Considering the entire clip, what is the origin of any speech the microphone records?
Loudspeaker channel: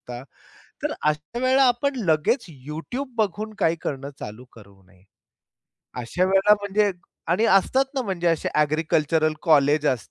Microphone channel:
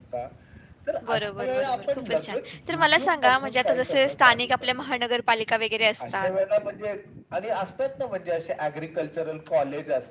both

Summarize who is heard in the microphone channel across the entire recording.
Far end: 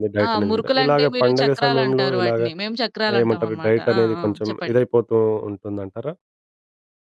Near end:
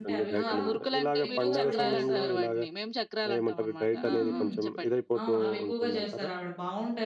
both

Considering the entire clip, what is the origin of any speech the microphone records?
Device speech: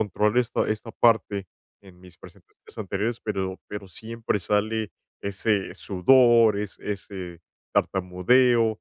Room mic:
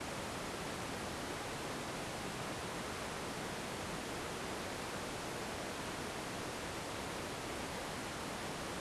neither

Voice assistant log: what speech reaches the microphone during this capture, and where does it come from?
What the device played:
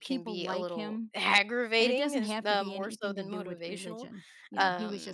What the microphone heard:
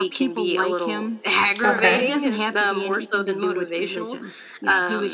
both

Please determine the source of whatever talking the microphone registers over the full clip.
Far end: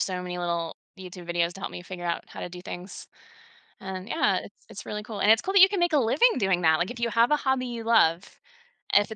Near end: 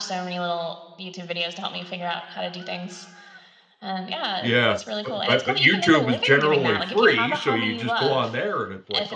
both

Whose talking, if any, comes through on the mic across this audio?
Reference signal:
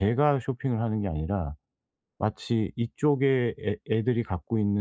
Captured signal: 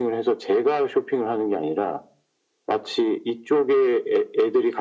echo only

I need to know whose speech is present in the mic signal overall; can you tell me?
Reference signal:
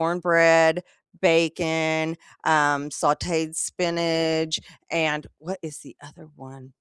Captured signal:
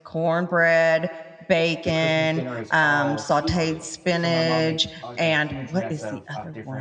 both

